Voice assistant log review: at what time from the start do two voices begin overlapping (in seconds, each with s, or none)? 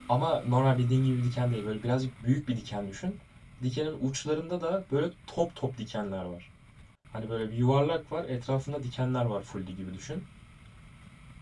none